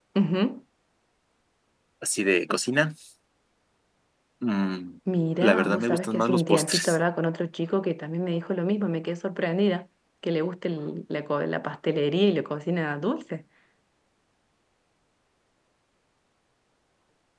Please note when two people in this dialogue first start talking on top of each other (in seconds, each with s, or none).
5.4 s